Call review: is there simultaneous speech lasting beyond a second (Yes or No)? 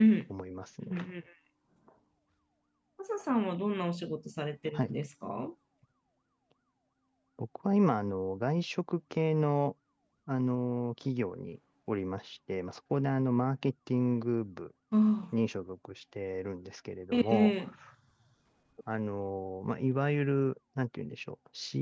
No